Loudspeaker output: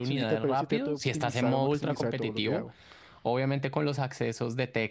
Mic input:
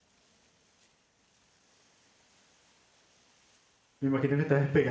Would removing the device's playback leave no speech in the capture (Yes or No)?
No